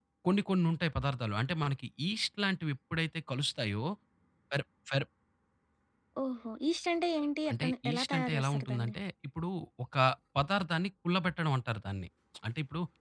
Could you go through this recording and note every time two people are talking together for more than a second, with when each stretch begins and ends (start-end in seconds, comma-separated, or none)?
7.5-8.9